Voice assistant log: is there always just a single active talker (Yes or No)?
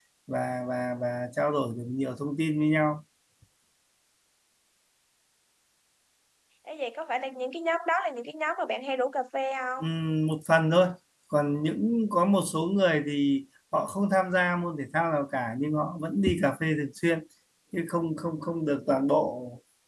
Yes